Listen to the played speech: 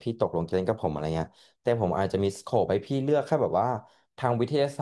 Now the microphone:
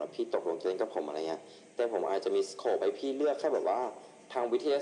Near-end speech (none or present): none